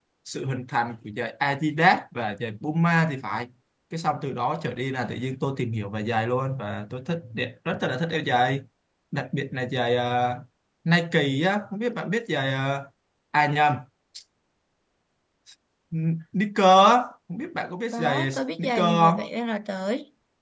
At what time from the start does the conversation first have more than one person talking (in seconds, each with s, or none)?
17.9 s